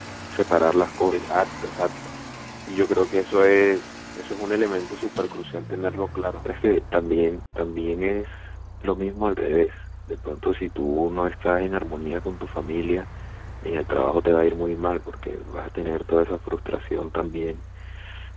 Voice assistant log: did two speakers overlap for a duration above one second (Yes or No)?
No